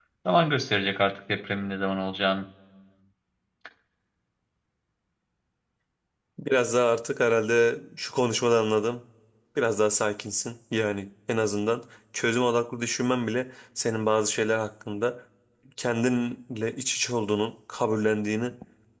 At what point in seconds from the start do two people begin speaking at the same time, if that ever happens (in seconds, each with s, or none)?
none